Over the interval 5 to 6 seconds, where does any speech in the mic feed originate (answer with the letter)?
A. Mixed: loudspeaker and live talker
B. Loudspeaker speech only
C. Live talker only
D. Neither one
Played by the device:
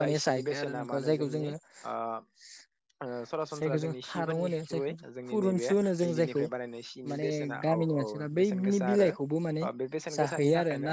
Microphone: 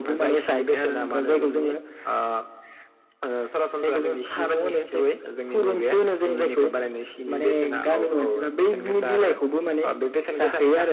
B